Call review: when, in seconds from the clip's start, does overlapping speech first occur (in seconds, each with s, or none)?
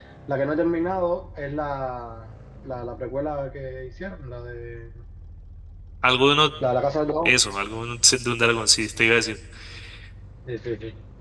none